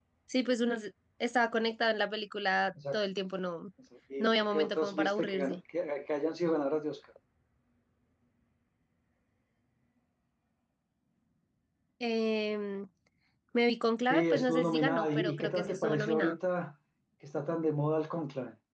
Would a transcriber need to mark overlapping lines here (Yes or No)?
Yes